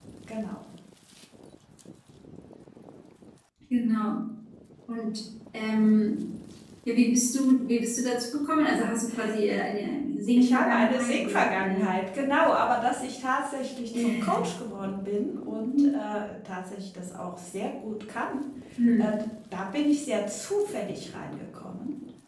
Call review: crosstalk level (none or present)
present